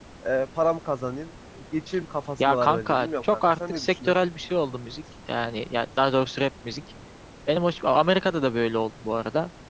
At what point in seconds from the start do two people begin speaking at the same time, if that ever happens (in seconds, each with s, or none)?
2.4 s